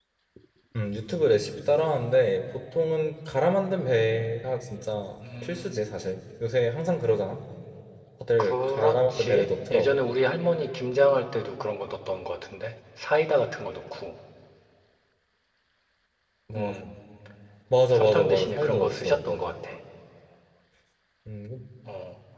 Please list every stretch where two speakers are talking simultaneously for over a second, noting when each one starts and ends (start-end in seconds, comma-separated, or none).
8.4-10.0, 17.9-19.5